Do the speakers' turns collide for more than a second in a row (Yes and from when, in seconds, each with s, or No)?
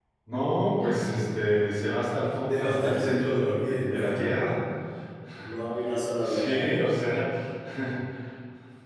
Yes, from 2.5 s